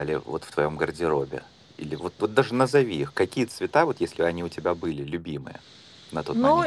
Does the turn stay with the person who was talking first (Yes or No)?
No